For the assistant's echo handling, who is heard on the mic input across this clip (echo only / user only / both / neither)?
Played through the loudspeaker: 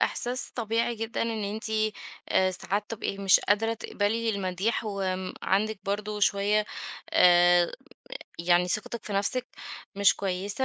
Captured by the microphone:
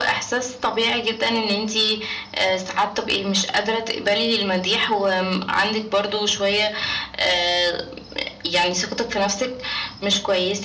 echo only